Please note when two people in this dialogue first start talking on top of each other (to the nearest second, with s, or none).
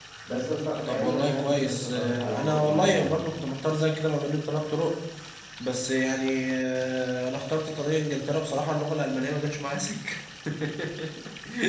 1 s